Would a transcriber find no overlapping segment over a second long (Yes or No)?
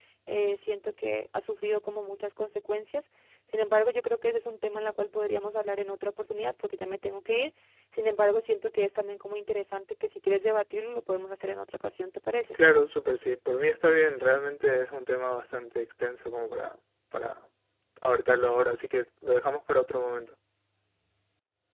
Yes